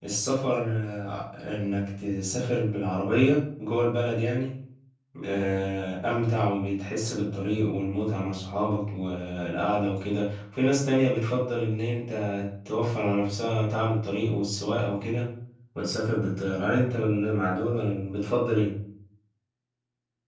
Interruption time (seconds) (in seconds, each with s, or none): none